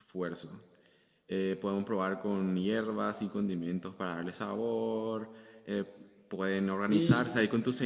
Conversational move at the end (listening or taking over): listening